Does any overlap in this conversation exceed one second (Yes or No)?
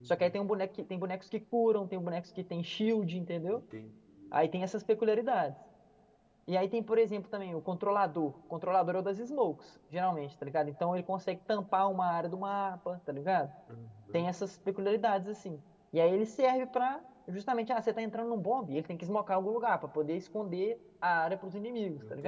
No